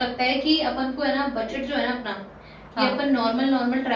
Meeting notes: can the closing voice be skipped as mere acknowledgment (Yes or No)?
Yes